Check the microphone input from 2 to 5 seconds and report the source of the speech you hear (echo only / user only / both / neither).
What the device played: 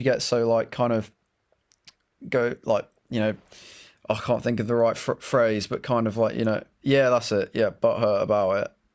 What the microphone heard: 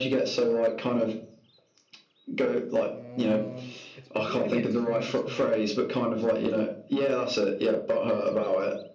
both